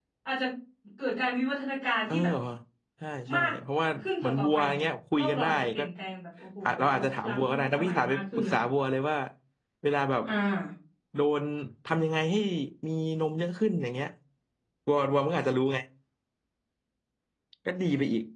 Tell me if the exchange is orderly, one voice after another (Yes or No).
No